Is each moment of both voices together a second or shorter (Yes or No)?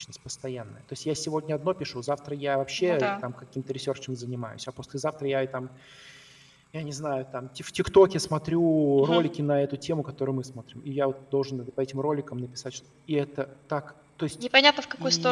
Yes